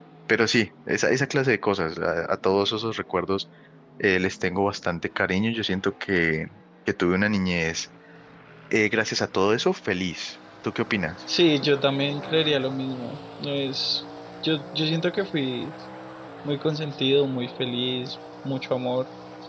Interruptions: none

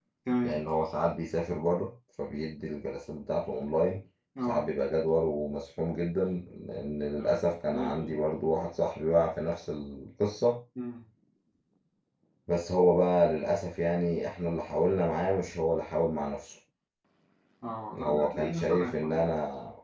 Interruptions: present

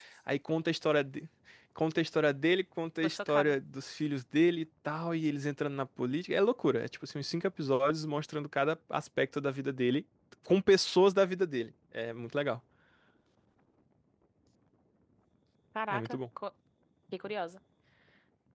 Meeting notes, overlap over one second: none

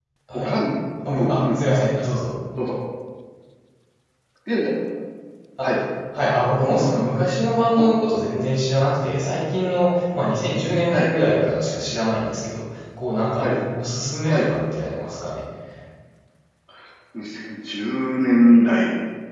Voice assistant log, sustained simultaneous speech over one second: none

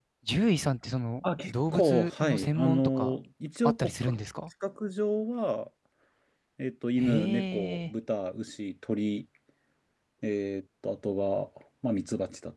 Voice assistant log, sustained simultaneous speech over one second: present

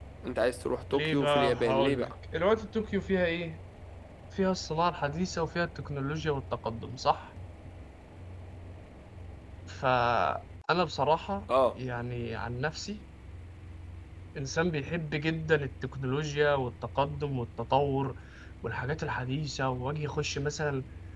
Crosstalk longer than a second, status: present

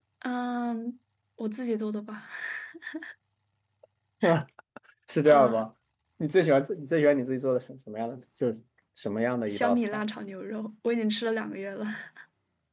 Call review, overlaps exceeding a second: none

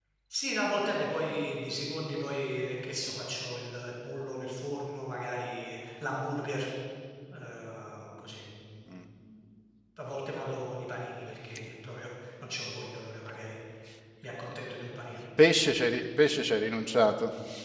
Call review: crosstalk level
none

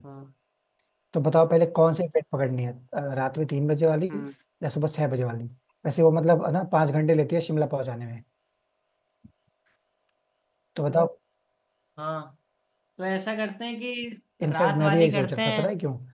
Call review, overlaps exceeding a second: present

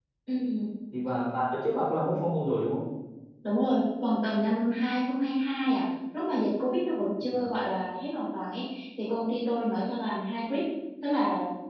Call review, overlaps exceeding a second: none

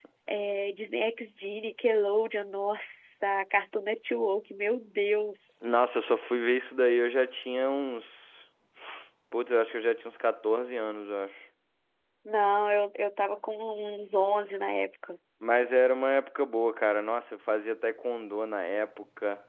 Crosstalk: none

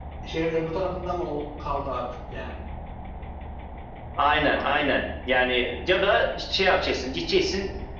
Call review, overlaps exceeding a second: none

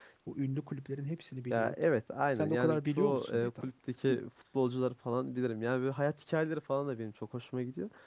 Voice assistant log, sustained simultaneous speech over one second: present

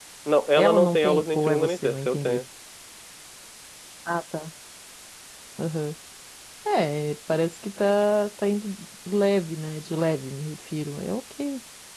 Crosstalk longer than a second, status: present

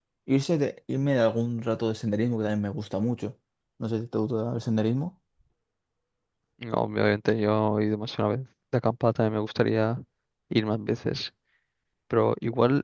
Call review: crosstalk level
none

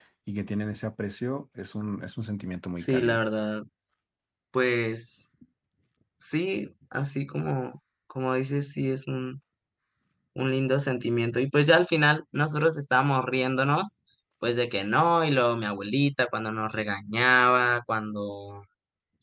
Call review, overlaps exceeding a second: none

